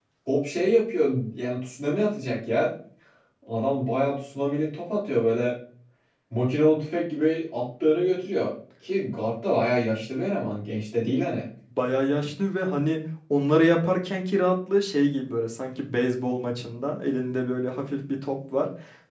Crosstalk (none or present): none